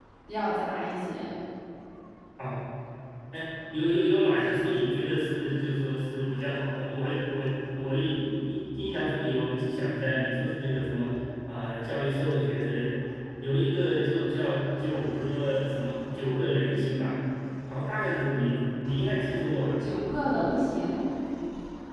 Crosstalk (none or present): none